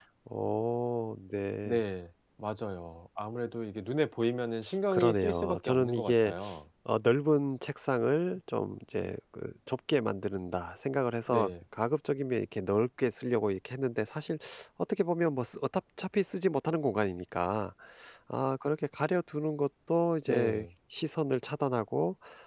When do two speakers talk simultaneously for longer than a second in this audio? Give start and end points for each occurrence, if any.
4.9-6.3

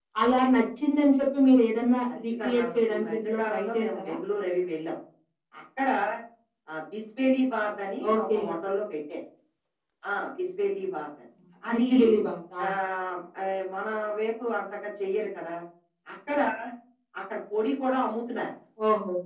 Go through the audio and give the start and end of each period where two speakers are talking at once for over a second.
2.3-4.1

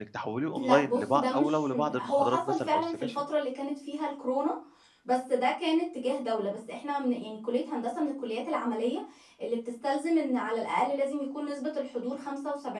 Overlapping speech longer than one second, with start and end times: 0.6-3.2

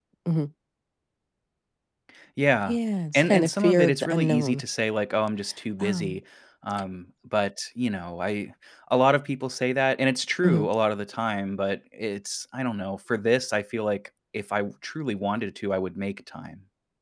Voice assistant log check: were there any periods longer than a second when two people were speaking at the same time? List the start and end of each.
3.1-4.6

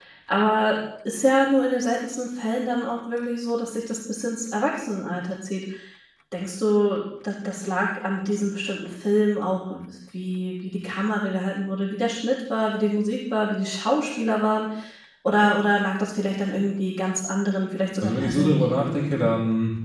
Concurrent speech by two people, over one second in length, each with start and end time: 18.0-19.3

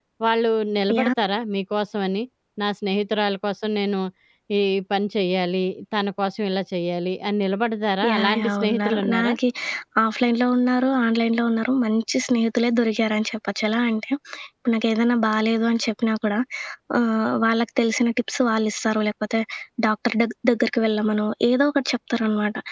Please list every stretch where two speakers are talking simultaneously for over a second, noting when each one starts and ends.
8.1-9.3

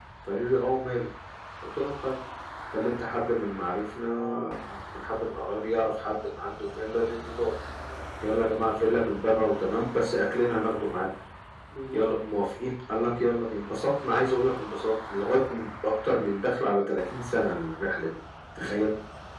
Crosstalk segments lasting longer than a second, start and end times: none

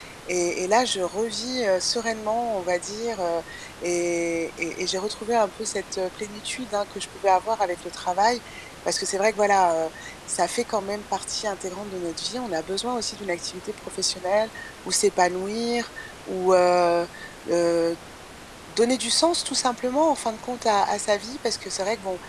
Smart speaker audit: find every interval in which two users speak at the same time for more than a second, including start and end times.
none

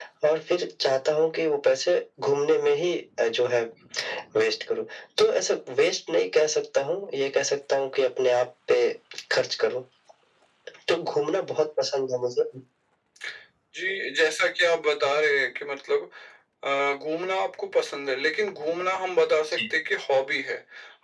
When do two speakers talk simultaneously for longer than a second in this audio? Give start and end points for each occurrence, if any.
none

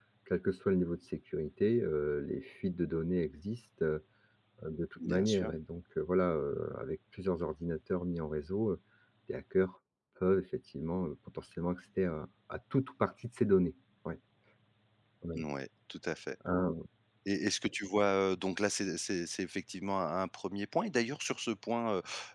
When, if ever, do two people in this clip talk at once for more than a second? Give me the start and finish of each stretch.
none

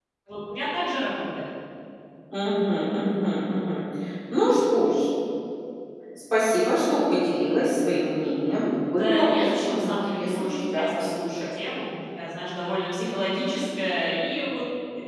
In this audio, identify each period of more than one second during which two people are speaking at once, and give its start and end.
8.9-11.3

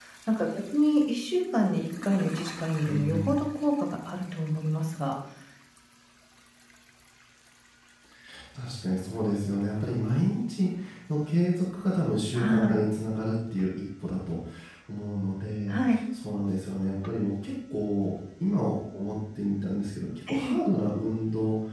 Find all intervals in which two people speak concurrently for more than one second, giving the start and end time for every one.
none

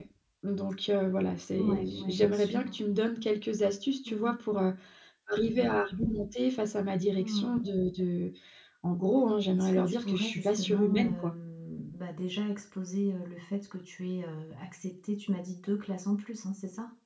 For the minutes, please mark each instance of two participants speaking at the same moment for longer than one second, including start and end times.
1.6-2.8, 9.6-11.3

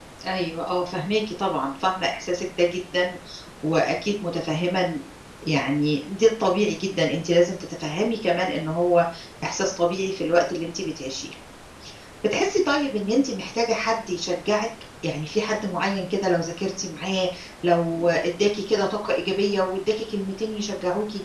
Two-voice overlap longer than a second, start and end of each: none

